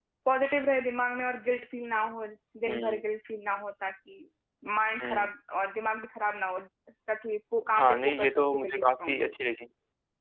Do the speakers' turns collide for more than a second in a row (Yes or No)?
Yes